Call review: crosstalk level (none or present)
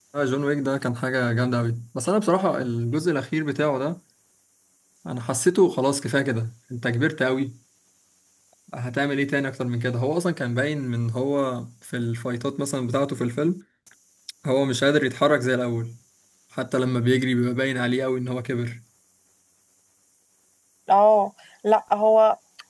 none